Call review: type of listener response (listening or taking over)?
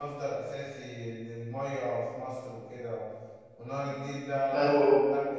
listening